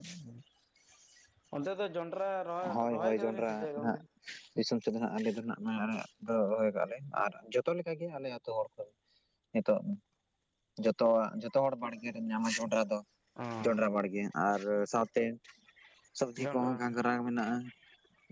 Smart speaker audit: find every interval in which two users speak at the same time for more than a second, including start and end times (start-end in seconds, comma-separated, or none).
2.6-4.0